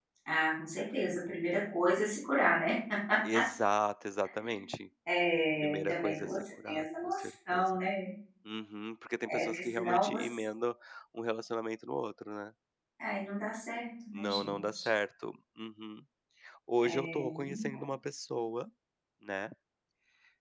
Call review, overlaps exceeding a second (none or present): present